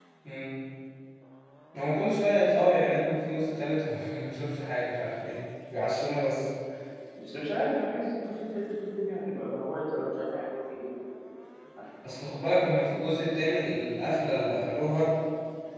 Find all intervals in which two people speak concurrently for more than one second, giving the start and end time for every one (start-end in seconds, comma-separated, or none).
none